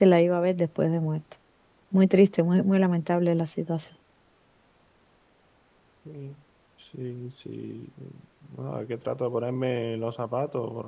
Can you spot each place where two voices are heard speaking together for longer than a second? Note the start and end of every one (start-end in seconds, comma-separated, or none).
none